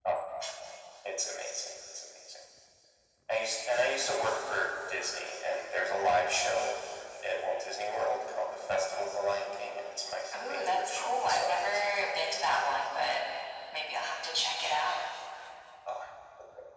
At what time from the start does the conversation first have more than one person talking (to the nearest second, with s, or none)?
10 s